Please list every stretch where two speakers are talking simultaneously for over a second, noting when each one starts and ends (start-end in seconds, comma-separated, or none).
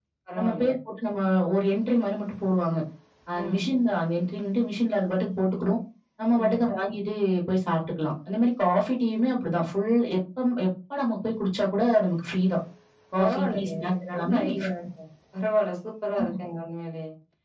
13.2-14.7